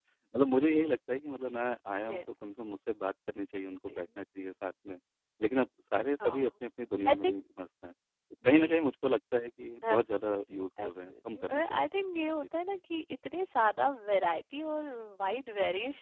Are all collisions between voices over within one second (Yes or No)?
No